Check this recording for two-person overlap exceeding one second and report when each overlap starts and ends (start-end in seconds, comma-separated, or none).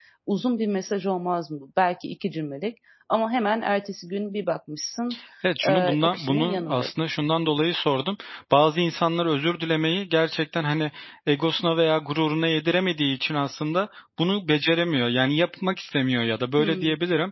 5.6-6.9